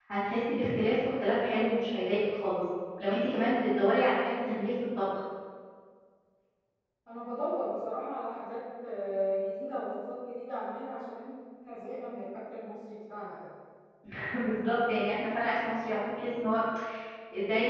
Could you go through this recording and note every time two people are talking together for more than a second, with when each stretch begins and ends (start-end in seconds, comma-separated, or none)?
none